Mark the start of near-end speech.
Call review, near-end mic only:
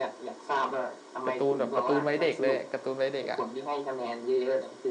1 s

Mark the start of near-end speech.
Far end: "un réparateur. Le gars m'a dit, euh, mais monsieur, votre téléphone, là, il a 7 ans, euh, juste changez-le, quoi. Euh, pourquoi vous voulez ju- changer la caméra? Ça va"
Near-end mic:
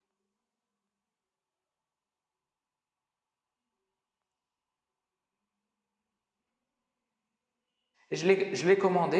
8 s

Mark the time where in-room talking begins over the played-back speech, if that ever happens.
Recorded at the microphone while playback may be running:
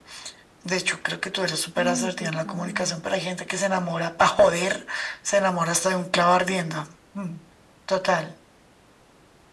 2 s

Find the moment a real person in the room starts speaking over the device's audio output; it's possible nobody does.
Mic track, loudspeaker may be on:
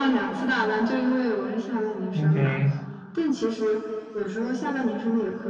2 s

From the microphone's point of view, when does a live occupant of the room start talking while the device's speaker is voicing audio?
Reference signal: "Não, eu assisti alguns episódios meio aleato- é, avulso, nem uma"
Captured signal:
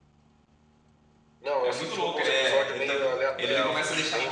2 s

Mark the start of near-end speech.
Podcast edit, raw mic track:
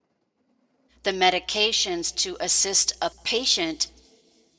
1 s

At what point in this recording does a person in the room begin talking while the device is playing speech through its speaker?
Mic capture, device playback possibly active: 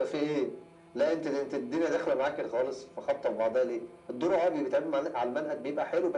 none

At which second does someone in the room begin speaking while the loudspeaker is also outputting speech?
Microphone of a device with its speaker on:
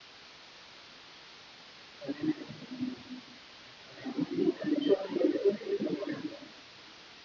none

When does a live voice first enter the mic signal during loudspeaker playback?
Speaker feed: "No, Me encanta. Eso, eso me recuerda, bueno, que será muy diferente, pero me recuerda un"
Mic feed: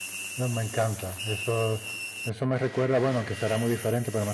none

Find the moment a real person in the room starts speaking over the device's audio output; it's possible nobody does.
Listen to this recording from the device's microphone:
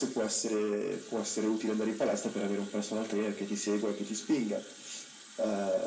none

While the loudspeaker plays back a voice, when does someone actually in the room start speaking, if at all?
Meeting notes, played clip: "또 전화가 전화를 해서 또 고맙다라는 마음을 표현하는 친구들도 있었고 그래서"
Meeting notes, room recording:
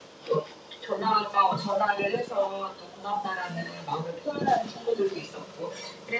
none

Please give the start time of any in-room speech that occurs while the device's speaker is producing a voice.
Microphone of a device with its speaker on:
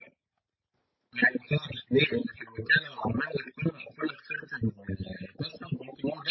none

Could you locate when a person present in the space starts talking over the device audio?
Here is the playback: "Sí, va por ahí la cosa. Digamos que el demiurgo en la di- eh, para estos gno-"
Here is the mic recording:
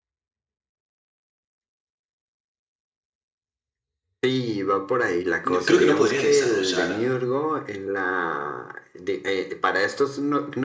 5 s

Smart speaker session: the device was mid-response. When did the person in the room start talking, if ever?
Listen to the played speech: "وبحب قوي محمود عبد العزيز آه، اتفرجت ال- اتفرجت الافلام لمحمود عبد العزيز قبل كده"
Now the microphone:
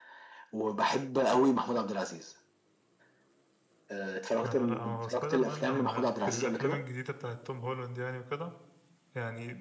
4 s

